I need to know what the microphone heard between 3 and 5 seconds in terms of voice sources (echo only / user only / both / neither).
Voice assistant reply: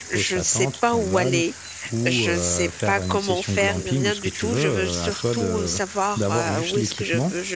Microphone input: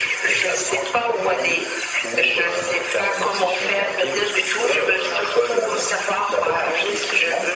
echo only